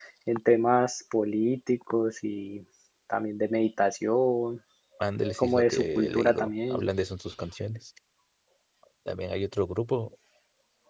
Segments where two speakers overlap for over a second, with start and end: 5.4-6.8

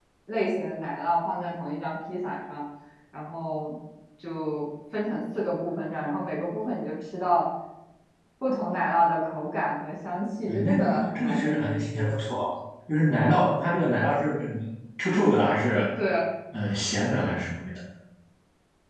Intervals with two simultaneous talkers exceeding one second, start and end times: 10.5-12.2

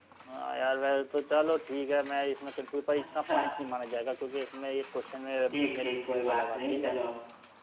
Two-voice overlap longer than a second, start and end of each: 5.5-6.9

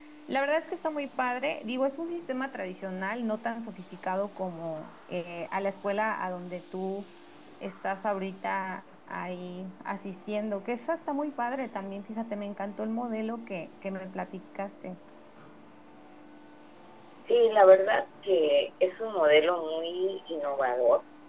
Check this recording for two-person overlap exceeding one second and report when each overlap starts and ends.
none

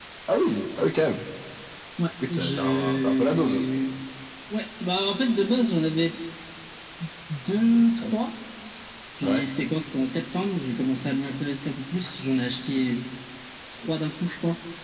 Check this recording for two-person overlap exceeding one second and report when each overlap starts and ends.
2.3-3.6

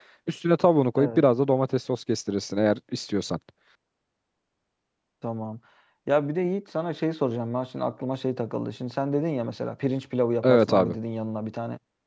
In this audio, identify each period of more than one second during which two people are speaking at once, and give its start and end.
none

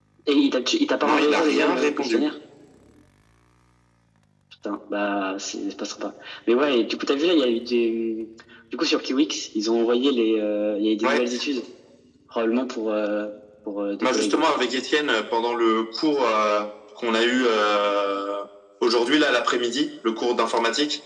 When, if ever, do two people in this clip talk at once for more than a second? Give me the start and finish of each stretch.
1.0-2.3

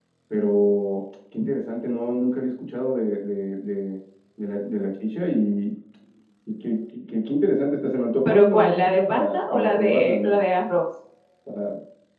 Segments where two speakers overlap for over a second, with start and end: 8.2-10.4

